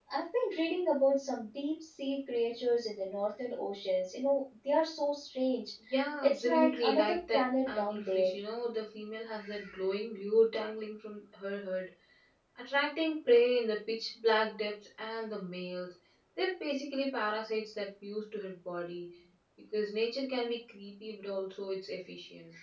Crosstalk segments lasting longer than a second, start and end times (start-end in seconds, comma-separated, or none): 6.2-8.3